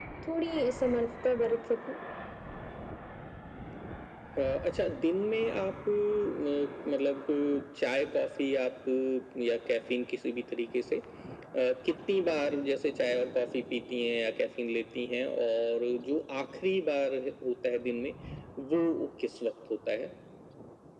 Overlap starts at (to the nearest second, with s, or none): none